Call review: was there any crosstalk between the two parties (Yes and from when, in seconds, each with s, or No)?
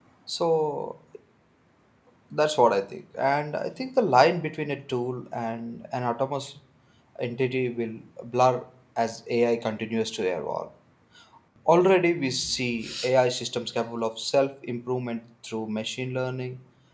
No